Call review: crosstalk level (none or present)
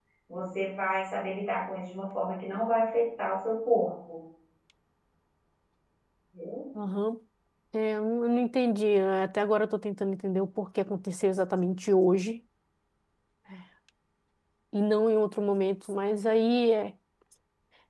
none